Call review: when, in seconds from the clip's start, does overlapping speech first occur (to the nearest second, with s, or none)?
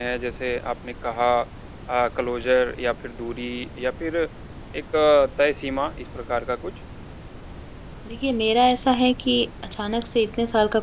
none